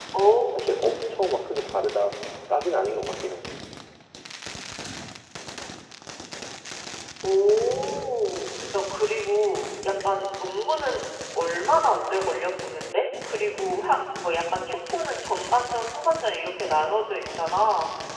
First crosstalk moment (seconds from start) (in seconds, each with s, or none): none